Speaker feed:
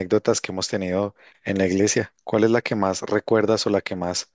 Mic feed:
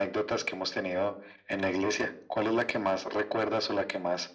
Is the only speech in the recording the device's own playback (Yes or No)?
Yes